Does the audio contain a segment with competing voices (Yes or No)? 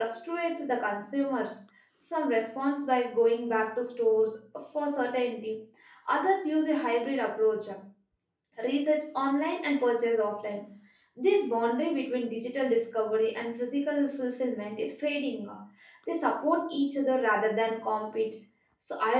No